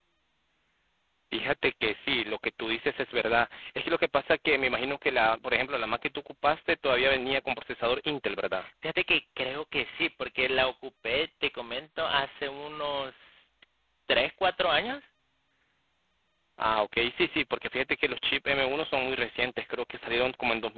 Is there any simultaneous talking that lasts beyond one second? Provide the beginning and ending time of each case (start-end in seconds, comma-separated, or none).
none